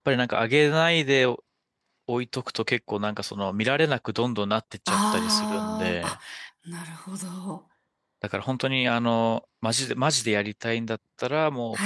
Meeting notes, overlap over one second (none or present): present